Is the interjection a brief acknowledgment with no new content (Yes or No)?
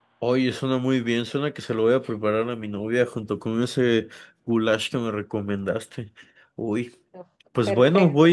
Yes